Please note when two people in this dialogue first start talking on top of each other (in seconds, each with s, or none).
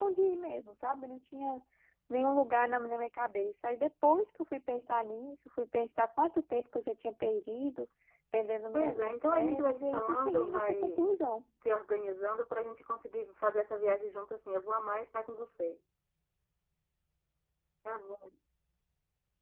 8.7 s